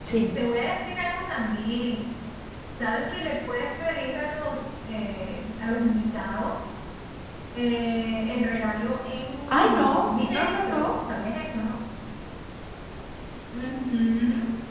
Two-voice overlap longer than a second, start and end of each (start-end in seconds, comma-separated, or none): 9.5-10.9